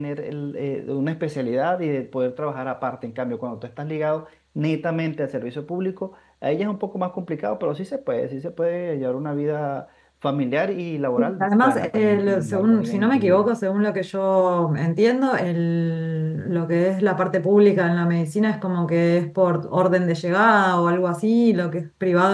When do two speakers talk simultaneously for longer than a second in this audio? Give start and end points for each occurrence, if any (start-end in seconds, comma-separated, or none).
11.4-13.5